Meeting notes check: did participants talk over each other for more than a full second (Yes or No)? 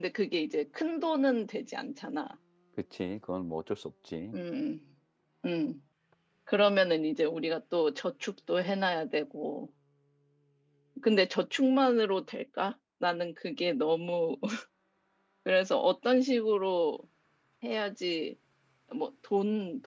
No